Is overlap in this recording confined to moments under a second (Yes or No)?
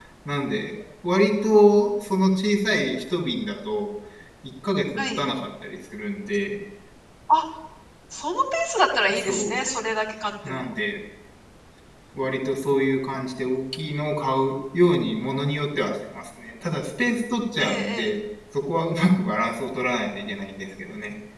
Yes